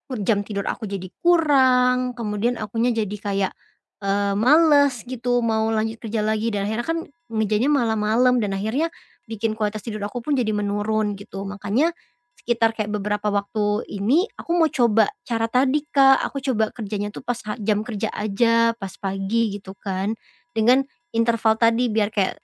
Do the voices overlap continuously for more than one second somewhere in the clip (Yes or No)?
No